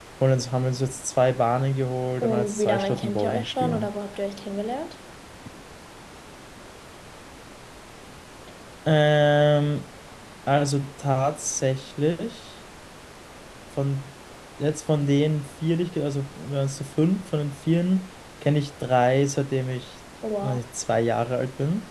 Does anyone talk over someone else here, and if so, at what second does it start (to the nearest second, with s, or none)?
2 s